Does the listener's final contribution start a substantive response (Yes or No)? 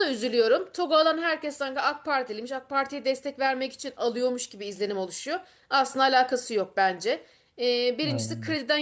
No